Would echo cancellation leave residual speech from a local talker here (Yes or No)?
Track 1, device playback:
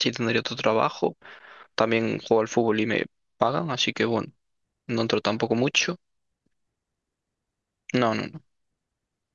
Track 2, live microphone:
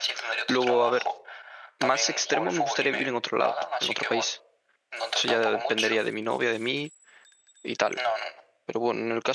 Yes